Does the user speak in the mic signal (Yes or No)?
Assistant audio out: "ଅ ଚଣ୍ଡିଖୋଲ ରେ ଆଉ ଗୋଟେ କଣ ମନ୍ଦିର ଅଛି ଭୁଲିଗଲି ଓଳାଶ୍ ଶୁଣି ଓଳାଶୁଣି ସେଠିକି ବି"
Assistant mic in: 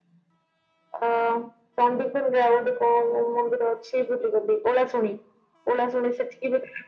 No